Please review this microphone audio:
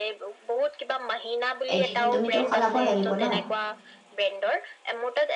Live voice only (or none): এদিন তুমি টো সলাব লাগিব ন?